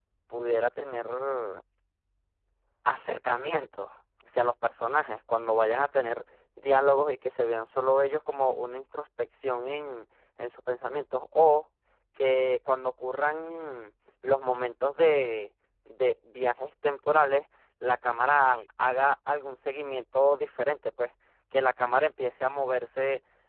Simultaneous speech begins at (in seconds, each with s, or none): none